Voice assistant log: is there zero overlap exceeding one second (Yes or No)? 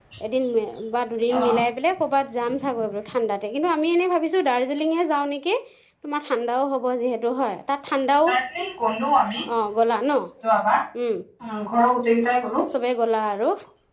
Yes